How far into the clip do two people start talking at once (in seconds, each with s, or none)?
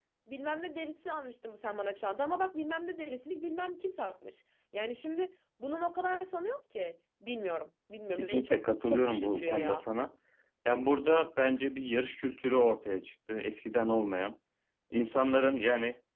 8.1 s